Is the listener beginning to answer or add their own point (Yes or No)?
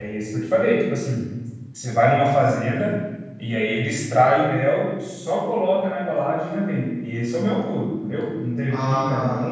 No